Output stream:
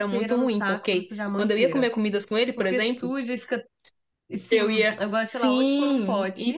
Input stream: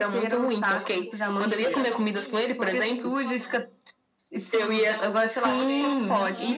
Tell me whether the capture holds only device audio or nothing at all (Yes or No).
No